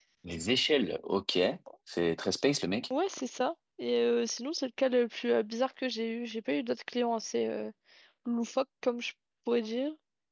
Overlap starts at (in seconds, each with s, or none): none